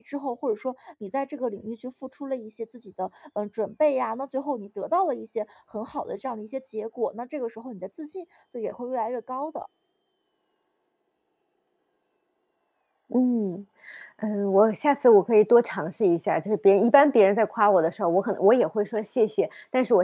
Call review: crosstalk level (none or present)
none